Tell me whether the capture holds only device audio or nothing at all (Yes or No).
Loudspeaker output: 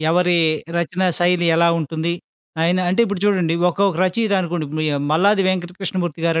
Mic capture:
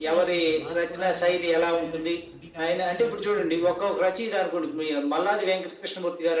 No